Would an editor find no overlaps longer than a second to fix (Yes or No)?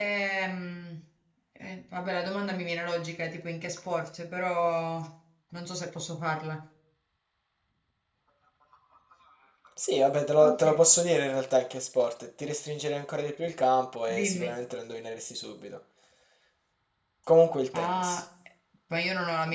Yes